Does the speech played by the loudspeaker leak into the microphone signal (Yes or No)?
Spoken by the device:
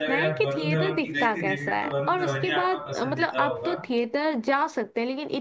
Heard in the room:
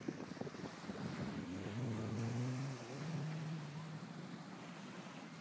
No